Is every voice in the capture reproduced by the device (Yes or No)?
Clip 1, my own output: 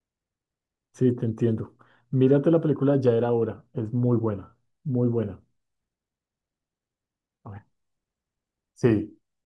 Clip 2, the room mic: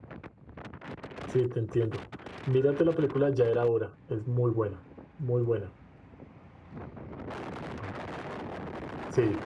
Yes